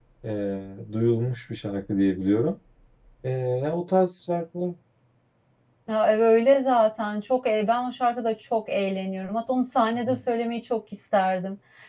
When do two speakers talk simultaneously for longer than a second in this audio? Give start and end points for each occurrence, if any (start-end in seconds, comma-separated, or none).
none